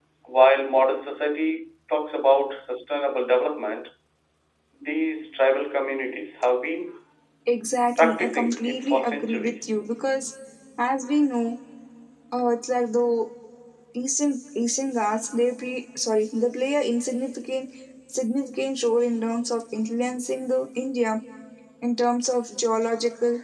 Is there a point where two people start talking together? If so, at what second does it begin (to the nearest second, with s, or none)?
8 s